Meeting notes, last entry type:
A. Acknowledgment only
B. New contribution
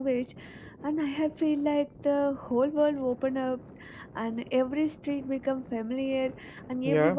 A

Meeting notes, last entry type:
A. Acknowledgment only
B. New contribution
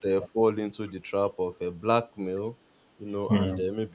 A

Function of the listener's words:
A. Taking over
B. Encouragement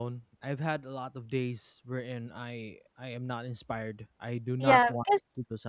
A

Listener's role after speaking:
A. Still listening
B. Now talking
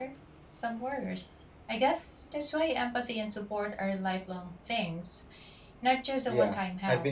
B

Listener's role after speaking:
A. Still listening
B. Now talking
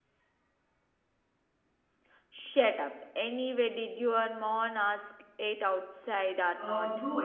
B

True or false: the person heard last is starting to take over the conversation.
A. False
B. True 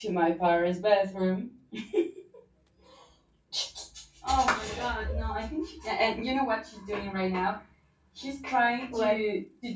A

